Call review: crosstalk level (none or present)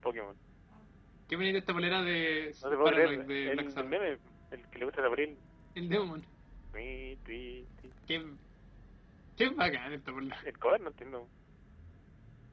present